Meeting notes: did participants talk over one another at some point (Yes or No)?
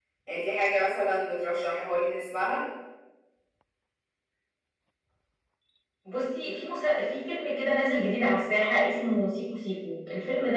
No